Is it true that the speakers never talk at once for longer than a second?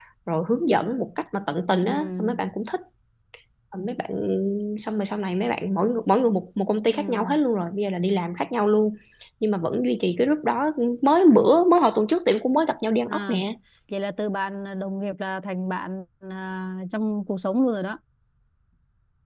Yes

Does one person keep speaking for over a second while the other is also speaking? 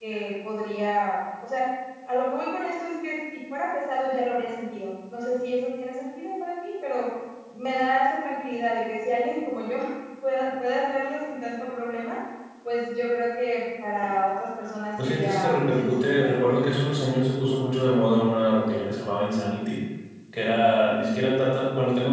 Yes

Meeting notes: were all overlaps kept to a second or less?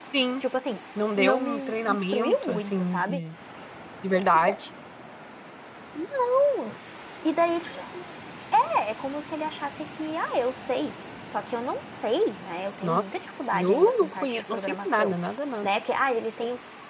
No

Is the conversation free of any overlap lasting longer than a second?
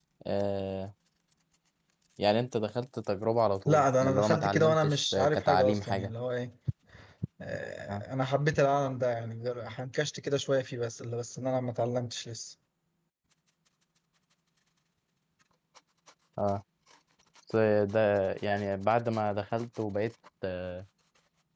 No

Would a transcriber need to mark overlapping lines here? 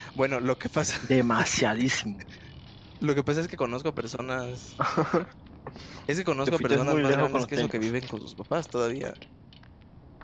Yes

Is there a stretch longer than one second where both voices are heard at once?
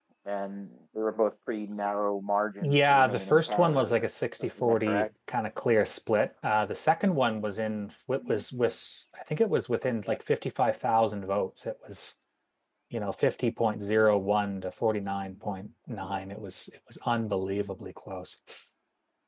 Yes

